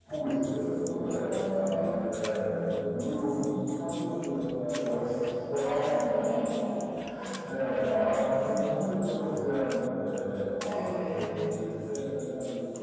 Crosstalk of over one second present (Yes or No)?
Yes